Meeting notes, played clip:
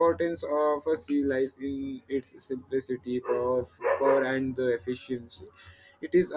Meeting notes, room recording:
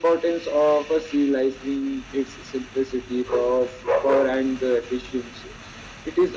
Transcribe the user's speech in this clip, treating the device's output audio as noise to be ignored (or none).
none